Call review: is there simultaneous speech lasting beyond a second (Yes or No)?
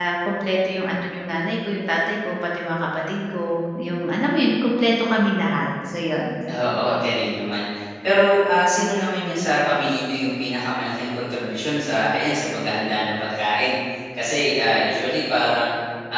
No